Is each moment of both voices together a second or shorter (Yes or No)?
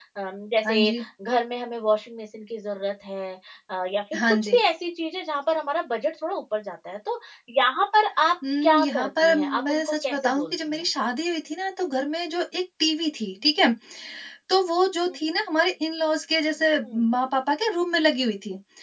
No